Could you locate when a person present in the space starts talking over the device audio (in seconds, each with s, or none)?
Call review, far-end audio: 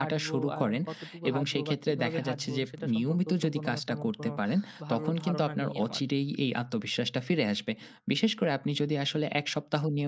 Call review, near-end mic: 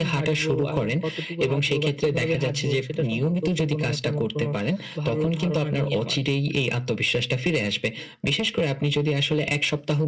none